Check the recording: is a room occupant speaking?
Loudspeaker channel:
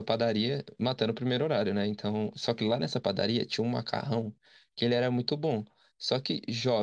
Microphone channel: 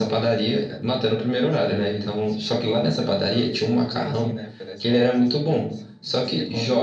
Yes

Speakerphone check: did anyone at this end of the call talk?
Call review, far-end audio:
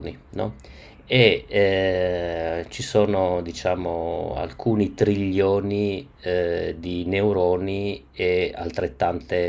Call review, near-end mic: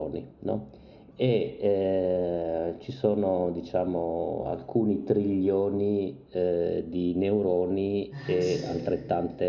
Yes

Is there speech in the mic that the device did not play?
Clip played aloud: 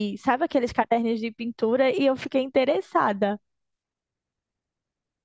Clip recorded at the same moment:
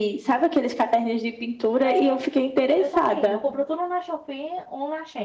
Yes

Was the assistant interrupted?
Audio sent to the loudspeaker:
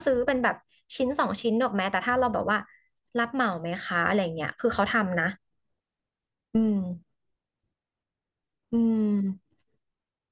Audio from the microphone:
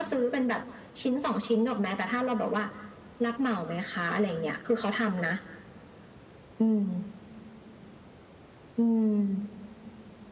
No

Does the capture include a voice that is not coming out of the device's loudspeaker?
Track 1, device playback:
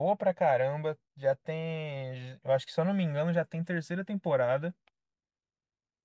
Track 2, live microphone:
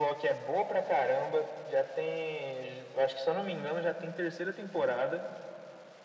No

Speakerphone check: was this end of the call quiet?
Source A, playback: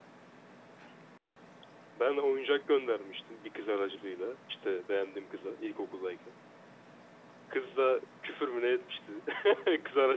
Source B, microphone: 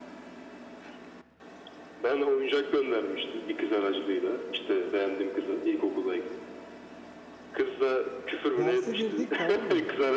No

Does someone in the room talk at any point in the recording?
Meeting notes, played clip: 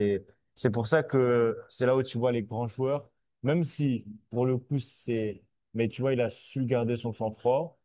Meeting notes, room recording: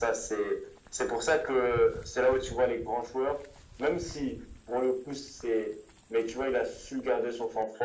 No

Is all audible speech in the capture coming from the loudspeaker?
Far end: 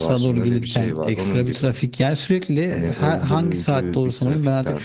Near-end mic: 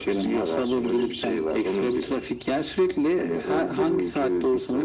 Yes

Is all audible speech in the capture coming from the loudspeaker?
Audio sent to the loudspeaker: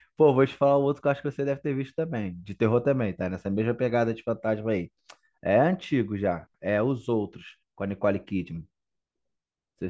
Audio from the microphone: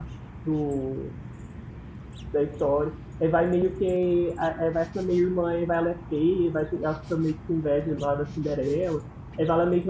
No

